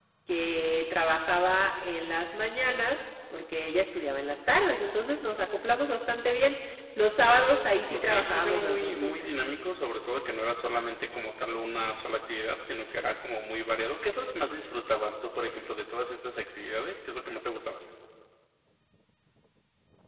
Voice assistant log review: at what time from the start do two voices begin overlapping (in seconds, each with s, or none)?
7.9 s